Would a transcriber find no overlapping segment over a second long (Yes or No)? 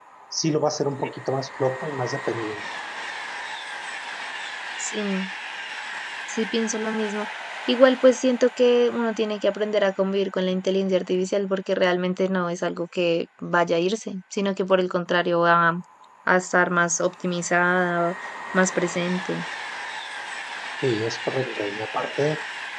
Yes